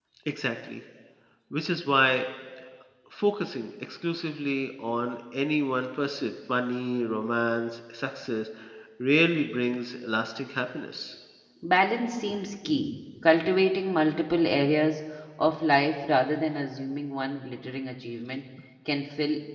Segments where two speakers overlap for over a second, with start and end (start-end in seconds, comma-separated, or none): none